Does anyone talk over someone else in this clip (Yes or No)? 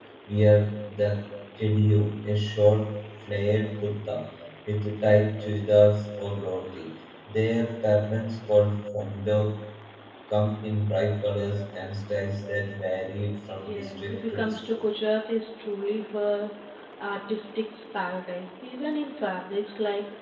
Yes